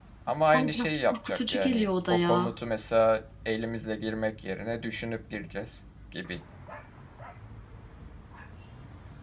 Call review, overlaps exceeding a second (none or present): present